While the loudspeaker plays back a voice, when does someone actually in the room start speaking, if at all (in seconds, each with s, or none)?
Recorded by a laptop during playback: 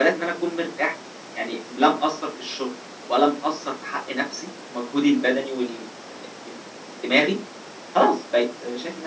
none